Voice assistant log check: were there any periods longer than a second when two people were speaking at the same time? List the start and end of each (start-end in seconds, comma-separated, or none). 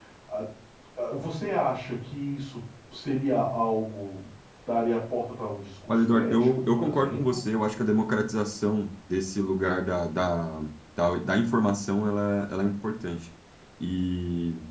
5.9-7.4